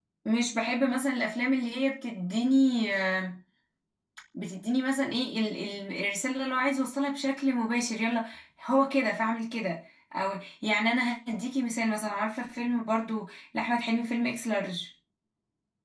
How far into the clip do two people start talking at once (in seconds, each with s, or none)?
none